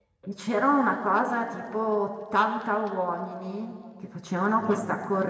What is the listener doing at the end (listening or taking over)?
listening